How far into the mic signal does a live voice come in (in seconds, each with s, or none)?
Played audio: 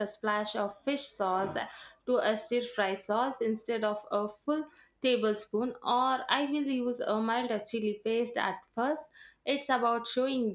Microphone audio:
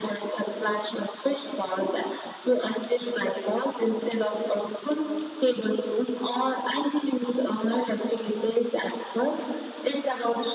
none